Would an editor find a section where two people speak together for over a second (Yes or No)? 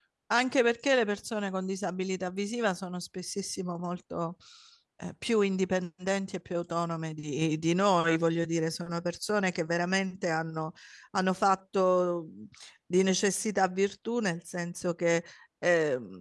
No